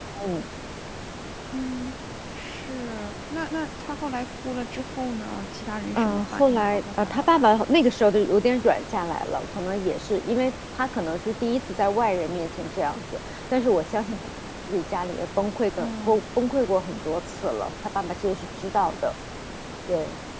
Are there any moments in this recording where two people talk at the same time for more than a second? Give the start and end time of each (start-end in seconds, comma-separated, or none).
6.0-7.5